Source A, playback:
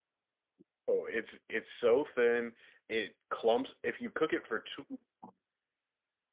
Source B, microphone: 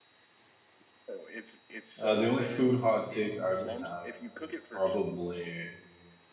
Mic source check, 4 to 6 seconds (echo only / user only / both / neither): both